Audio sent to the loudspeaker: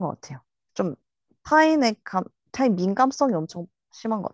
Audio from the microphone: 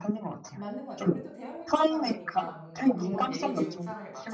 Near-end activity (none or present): present